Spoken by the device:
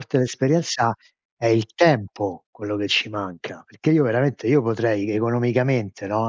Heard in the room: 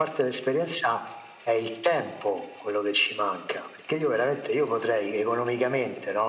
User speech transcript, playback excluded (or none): none